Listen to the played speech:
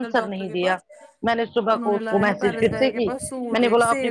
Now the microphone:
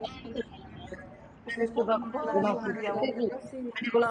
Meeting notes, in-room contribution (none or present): present